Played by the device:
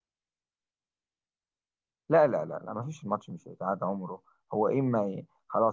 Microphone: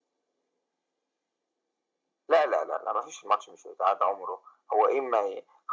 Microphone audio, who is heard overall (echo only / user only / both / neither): echo only